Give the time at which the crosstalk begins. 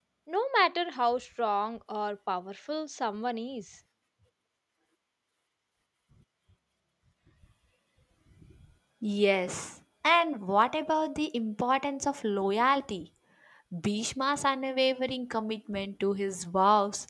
none

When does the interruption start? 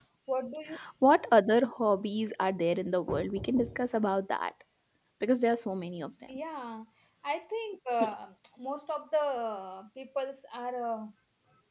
none

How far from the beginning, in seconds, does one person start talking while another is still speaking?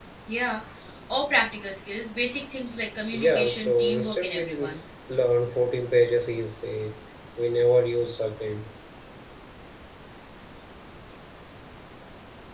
3.1 s

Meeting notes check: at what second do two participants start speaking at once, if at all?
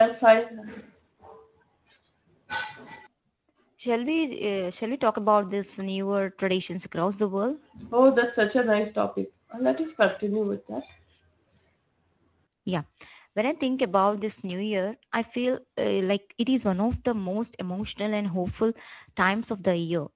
none

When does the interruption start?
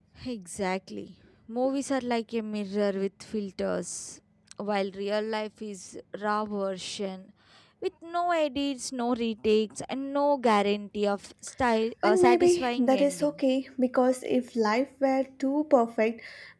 12.0 s

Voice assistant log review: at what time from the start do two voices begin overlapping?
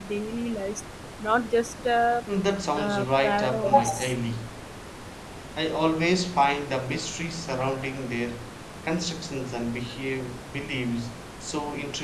2.8 s

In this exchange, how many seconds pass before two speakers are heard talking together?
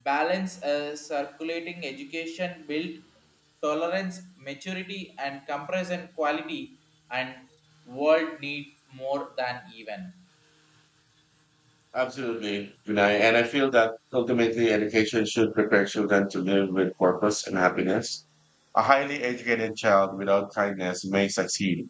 none

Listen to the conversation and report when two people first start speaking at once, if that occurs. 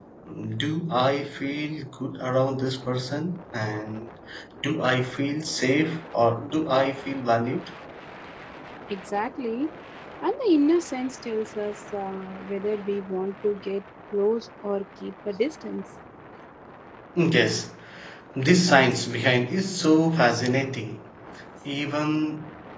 none

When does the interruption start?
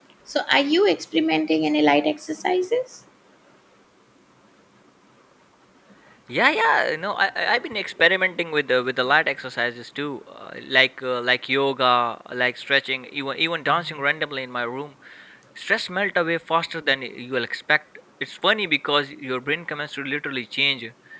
none

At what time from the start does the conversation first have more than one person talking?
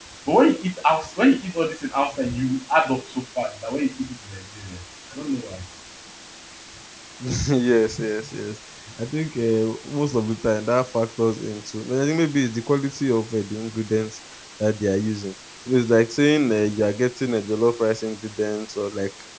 none

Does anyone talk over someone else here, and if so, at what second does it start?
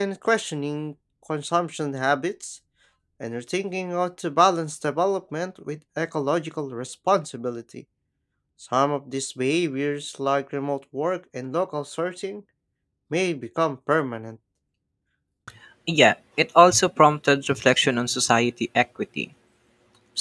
none

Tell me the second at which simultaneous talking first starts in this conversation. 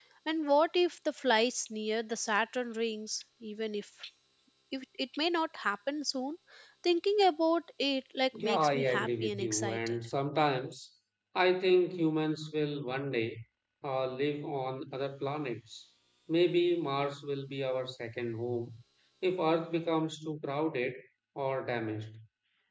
8.3 s

